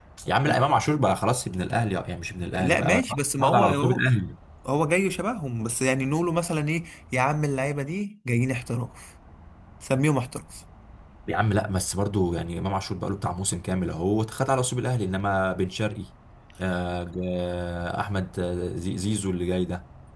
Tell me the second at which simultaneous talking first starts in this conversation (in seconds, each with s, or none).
2.5 s